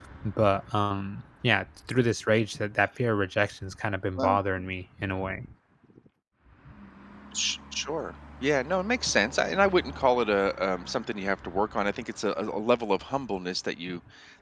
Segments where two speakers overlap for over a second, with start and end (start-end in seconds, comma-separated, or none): none